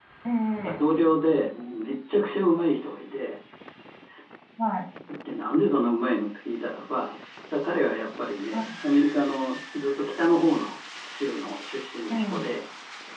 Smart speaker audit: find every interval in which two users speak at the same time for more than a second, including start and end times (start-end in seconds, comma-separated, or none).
none